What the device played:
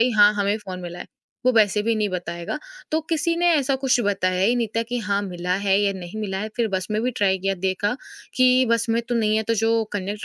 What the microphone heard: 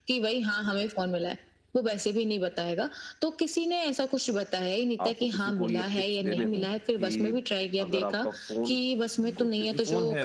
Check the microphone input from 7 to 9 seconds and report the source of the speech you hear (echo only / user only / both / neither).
both